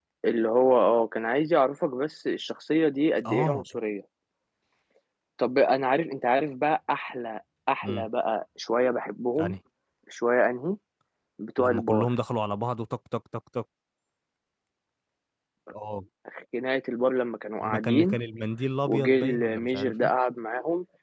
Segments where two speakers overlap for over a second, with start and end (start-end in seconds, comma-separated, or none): 18.9-20.1